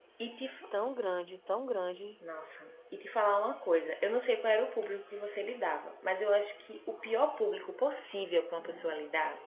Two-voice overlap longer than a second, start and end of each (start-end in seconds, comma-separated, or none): none